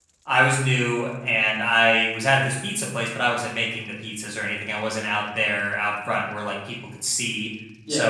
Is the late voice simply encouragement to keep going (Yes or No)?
Yes